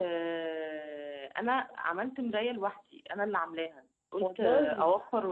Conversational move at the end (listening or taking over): listening